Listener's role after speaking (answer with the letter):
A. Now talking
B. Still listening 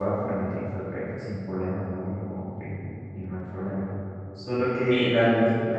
B